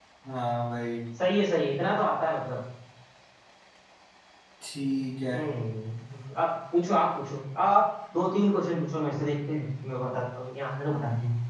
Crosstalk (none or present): none